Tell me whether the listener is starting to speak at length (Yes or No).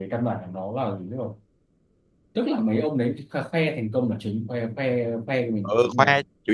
Yes